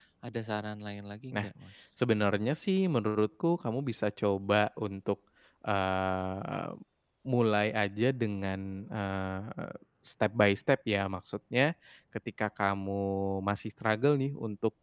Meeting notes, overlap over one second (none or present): none